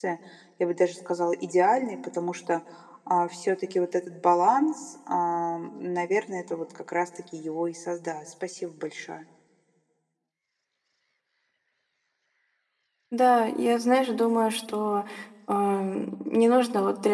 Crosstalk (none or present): none